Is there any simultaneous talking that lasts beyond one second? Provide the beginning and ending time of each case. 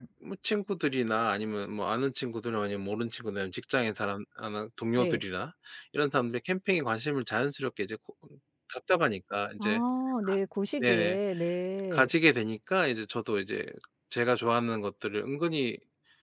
none

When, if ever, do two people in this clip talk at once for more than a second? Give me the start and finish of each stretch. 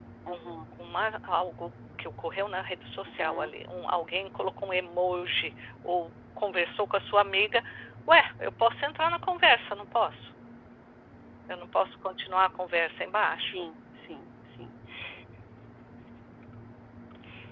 none

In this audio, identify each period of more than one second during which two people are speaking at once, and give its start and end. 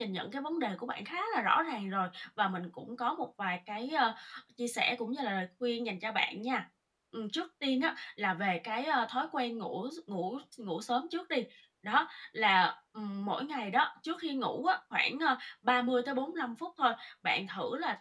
none

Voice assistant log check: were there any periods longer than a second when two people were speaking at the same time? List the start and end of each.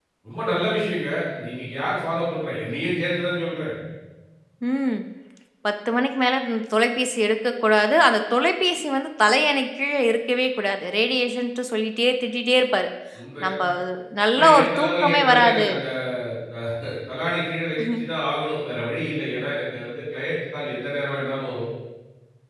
14.3-15.7

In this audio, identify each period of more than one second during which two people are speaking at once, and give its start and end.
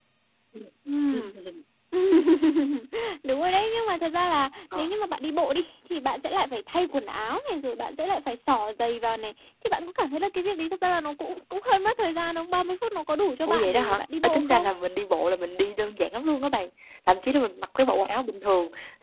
13.5-14.7

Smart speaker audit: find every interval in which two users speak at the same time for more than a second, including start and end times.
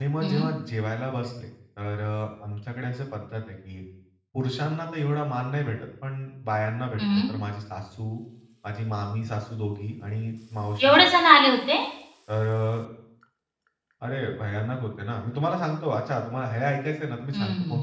none

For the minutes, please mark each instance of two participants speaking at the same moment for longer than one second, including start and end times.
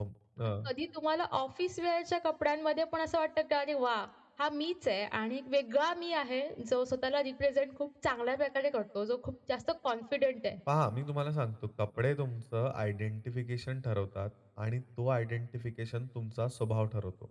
none

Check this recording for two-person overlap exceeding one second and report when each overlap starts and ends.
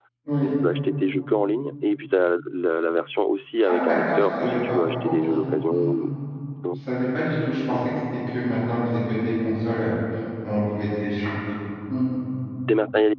3.6-5.1

